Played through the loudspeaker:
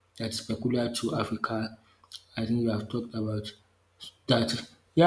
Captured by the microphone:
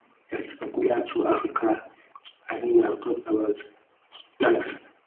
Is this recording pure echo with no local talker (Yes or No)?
Yes